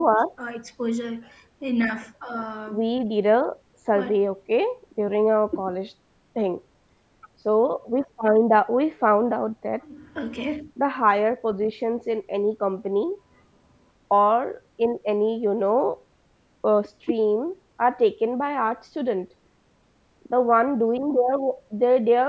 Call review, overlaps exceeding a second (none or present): none